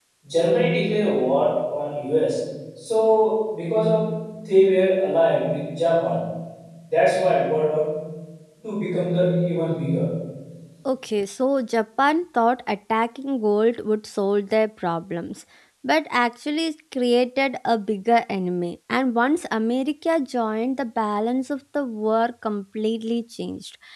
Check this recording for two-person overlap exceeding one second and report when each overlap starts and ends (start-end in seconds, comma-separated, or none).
none